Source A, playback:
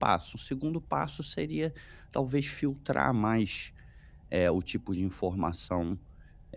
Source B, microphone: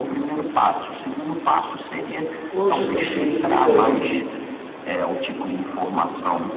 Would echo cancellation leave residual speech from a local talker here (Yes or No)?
Yes